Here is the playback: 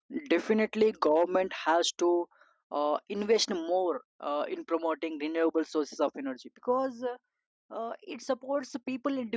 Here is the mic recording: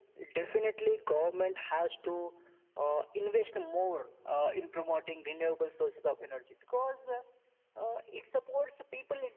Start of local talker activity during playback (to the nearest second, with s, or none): none